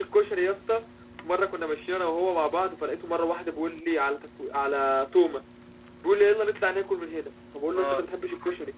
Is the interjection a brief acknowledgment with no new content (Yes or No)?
Yes